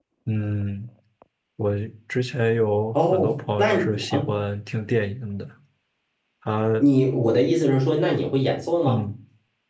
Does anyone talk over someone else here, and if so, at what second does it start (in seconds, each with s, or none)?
2.9 s